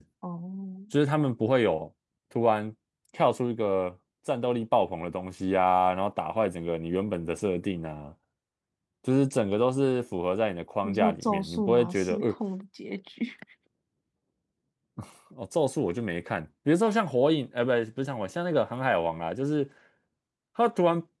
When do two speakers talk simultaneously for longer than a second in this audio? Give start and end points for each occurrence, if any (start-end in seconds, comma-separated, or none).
10.8-12.3